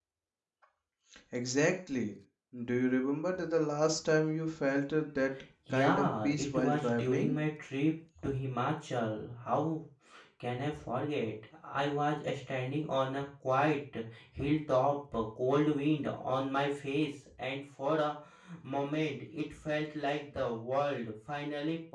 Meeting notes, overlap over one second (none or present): present